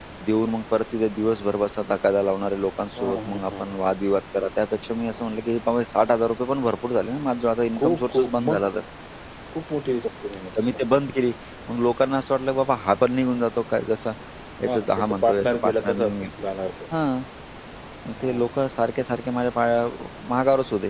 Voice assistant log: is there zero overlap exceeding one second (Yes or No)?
No